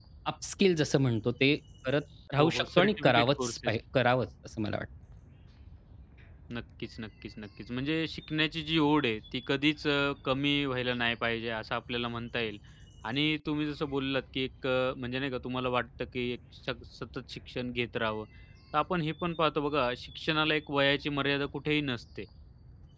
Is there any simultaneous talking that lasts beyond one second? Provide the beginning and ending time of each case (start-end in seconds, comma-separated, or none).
2.4-3.7